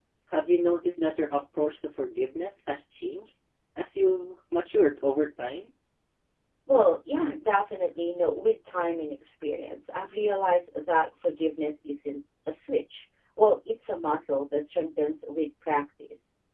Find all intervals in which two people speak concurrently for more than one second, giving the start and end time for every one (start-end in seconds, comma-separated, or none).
none